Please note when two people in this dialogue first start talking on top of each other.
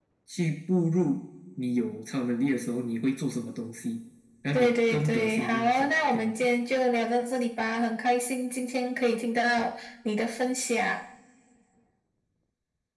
4.5 s

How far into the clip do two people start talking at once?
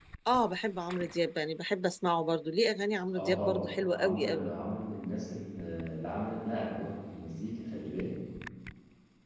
3.1 s

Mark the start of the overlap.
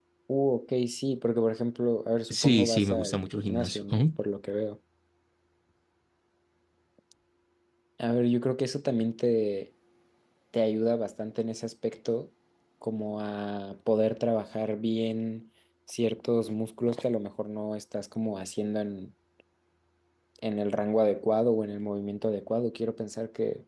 2.3 s

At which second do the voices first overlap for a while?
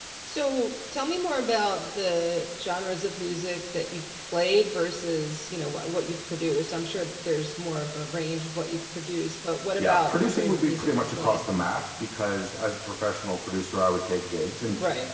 9.8 s

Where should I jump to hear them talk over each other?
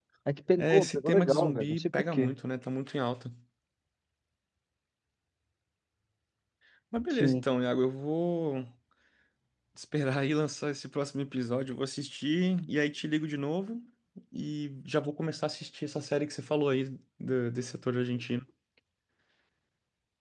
0.6 s

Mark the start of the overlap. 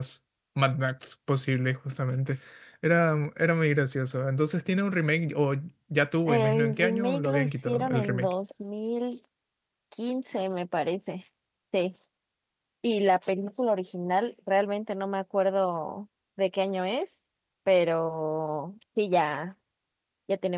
6.3 s

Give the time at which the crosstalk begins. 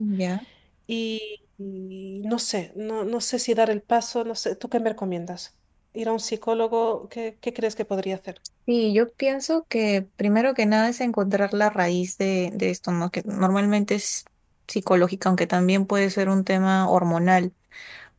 none

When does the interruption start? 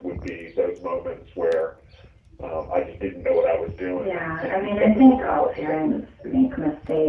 4.0 s

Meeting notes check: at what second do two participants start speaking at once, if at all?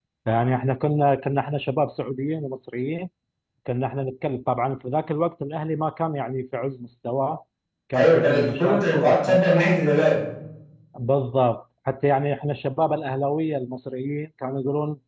8.0 s

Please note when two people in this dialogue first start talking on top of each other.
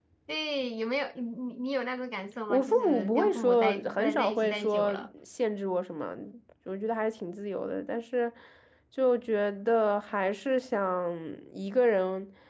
2.5 s

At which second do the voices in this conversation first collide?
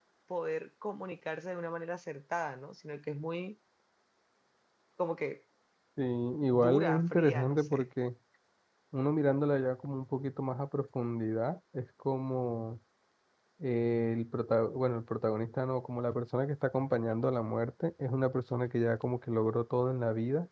6.4 s

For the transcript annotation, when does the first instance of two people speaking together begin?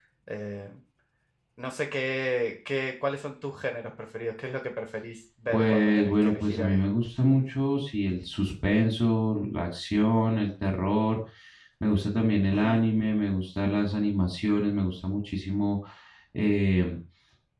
5.5 s

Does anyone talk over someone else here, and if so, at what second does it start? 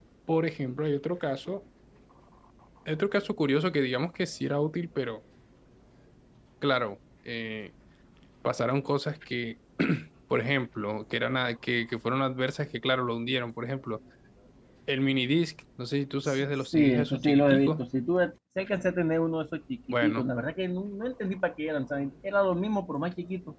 16.2 s

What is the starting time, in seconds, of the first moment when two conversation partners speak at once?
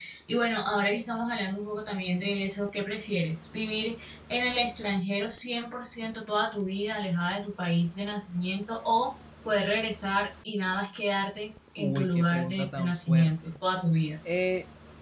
11.8 s

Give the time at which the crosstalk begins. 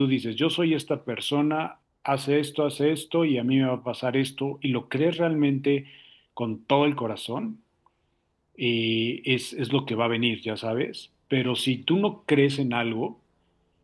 none

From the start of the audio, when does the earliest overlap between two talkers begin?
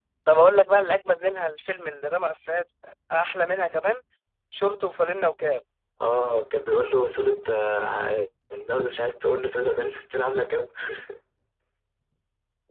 none

